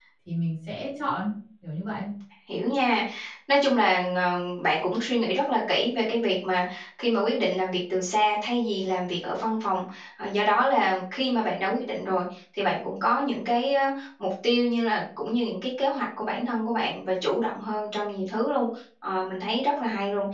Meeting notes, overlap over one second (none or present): none